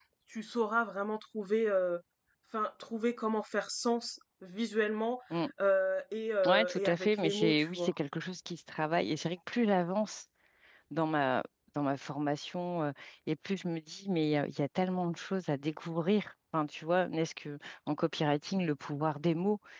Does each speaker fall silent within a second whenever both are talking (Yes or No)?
No